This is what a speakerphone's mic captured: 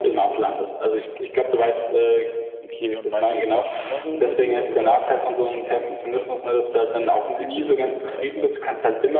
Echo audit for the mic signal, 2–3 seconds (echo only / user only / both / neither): both